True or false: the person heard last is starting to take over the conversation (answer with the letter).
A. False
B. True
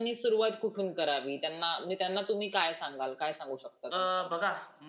B